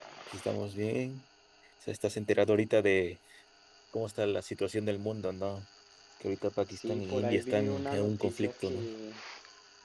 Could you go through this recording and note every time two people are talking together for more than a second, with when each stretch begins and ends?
6.8-8.9

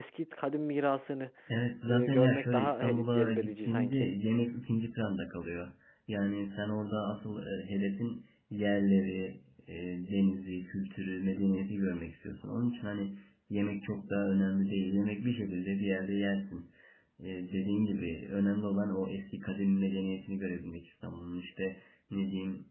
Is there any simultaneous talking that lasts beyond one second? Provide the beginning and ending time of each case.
1.9-4.1

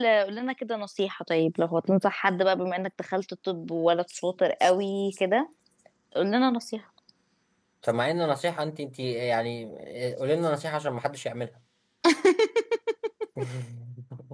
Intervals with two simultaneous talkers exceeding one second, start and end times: none

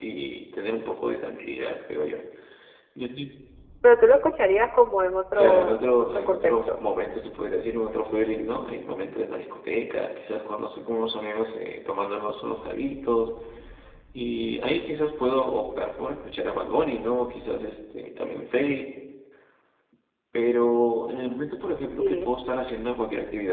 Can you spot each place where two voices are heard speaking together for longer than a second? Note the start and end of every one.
5.4-6.7

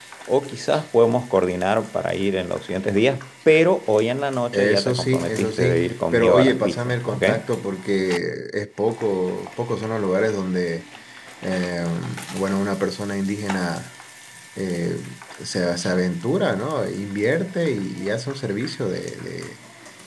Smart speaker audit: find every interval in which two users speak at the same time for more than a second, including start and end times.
4.5-7.2

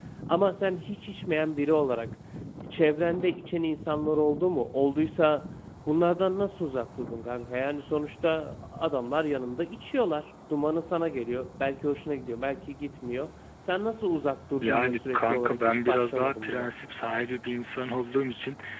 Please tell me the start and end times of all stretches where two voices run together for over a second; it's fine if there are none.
14.6-16.7

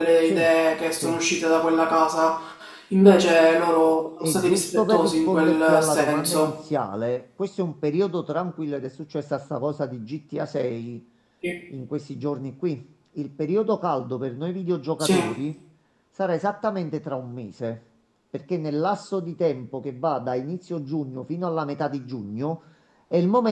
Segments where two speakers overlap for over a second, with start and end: 4.2-6.5

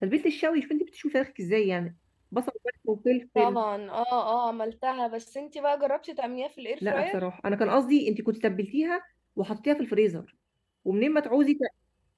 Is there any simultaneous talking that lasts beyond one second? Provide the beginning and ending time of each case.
none

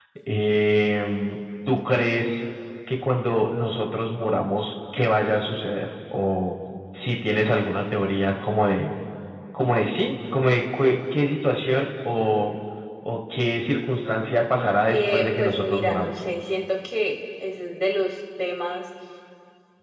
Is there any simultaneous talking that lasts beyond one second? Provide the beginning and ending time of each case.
14.9-16.2

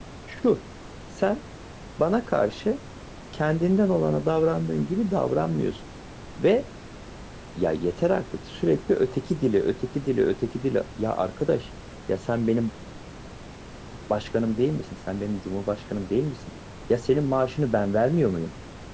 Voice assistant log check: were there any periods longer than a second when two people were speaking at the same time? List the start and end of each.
none

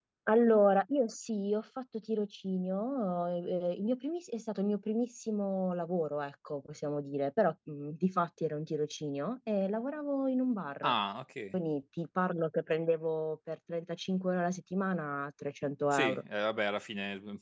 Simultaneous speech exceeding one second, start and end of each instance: none

